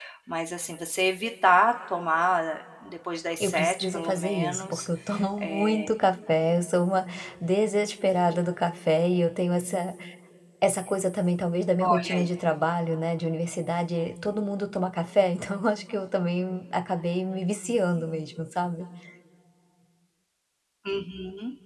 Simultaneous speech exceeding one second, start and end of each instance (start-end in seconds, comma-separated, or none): 3.4-4.9